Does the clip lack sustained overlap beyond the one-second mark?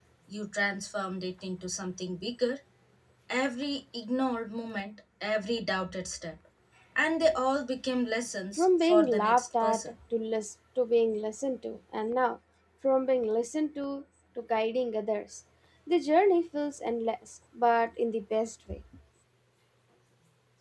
No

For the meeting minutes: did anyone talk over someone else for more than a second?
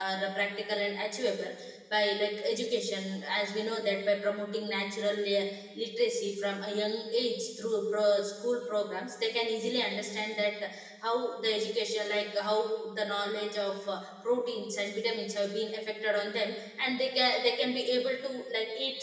No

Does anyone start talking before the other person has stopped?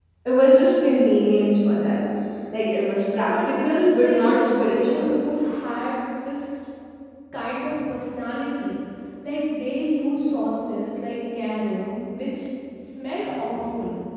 Yes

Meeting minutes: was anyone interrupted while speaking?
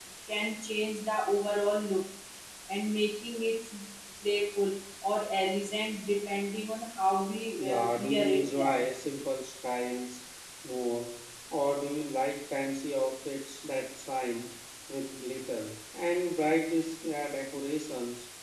Yes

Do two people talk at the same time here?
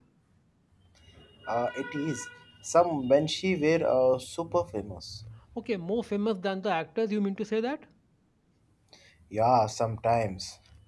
No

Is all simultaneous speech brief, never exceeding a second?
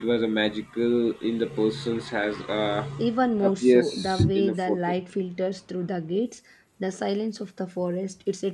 No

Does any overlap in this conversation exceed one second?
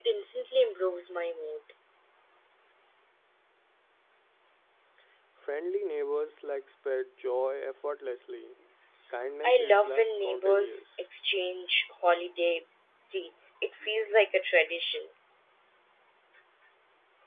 Yes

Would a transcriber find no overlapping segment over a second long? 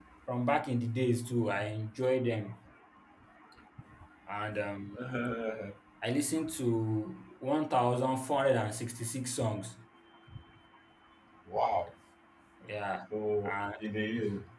Yes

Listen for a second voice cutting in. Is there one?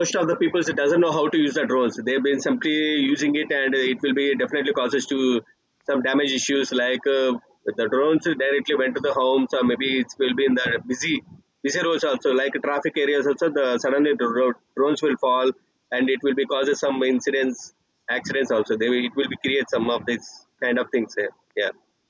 No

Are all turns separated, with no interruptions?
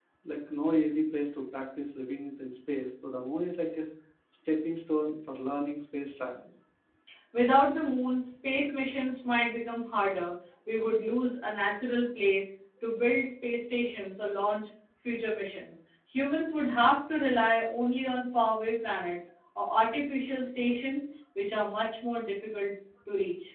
Yes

